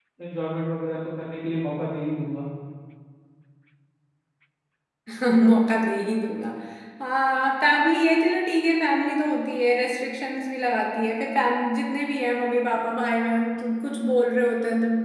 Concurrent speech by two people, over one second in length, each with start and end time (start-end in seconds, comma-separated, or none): none